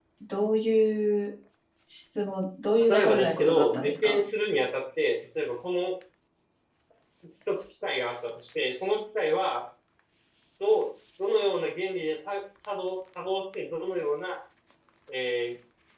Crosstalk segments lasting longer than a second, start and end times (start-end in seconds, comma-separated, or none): 2.9-4.2